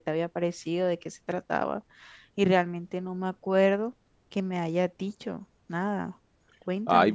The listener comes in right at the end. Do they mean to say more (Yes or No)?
Yes